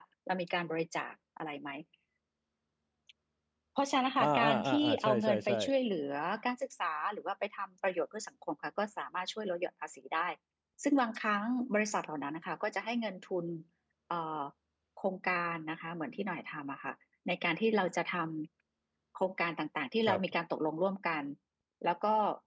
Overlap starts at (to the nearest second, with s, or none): 4 s